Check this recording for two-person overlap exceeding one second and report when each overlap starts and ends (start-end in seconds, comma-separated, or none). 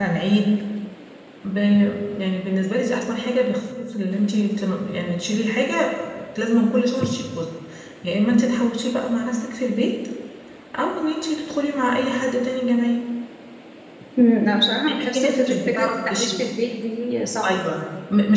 14.9-16.5